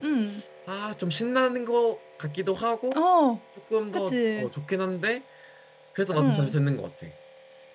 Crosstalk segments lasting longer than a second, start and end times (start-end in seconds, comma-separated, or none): none